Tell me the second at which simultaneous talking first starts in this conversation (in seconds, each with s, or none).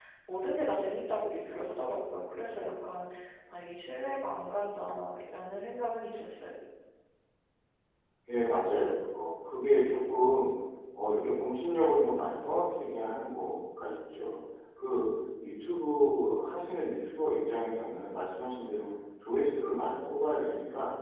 none